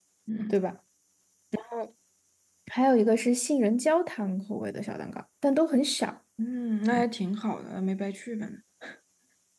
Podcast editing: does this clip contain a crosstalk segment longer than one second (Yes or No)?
No